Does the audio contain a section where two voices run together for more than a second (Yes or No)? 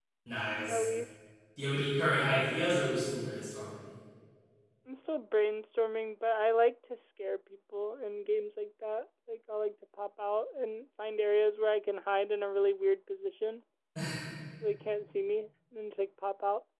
No